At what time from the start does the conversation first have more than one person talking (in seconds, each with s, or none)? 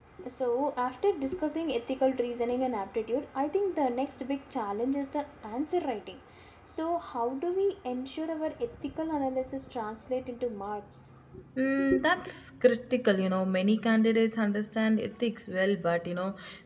none